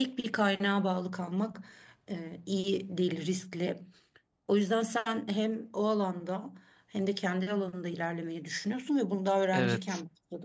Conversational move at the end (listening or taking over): listening